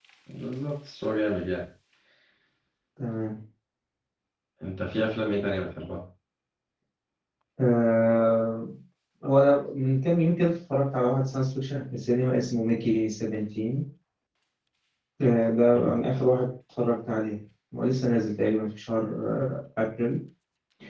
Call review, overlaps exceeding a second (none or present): none